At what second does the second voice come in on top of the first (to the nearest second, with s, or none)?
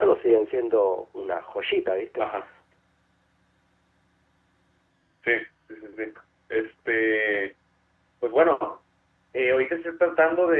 none